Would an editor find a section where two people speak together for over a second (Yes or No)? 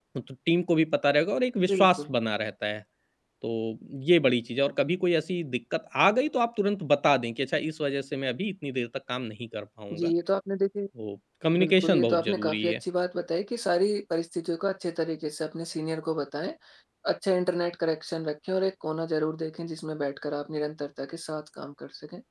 Yes